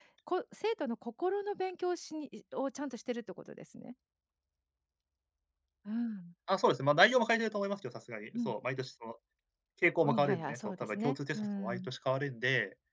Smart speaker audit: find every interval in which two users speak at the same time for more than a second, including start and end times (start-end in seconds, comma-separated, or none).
10.0-11.9